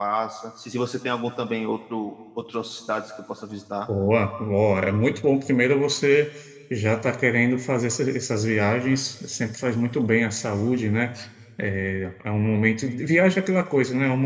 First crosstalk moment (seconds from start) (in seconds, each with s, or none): none